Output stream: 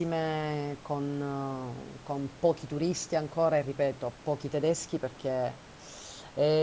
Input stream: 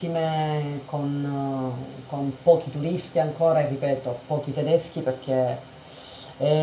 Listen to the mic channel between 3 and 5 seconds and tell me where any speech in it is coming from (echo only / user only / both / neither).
echo only